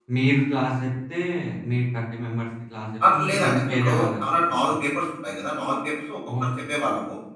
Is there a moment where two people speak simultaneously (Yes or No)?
Yes